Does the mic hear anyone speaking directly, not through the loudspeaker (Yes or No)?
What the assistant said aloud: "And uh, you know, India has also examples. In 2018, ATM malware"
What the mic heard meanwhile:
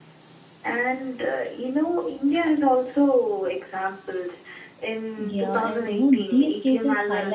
Yes